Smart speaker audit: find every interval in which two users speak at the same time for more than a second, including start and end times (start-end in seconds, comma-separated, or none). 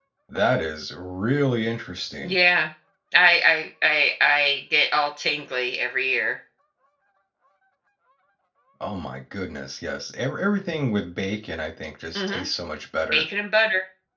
none